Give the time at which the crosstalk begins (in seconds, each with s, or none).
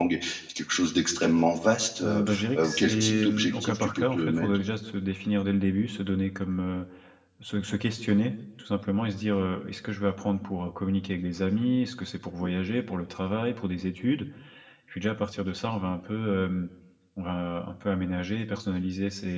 2.0 s